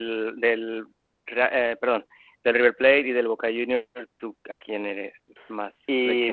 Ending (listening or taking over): taking over